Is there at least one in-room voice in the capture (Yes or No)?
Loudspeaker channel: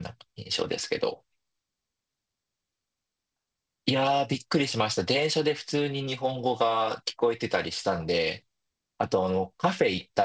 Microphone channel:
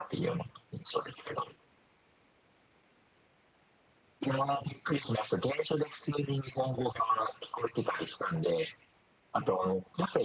No